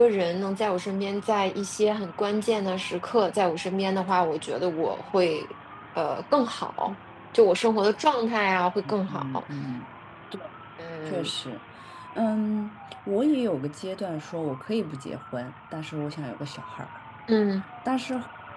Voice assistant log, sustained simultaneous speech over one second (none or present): none